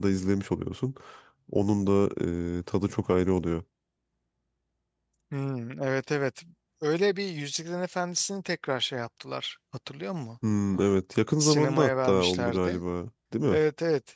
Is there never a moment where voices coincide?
No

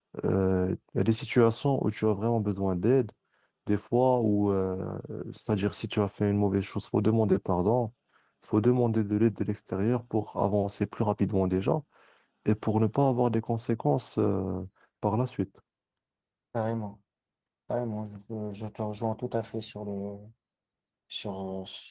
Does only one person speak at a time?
Yes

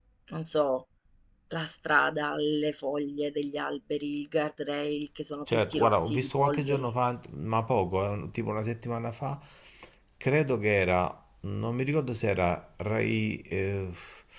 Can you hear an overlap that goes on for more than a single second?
Yes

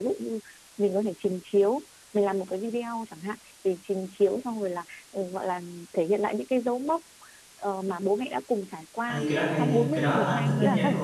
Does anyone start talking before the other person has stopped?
Yes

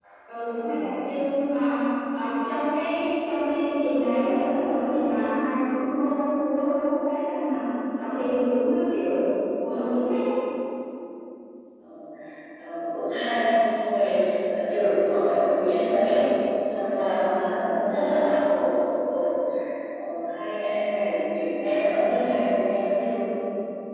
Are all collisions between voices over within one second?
Yes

